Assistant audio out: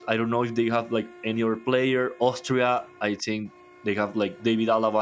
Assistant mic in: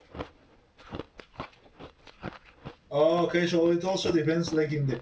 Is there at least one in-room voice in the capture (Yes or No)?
Yes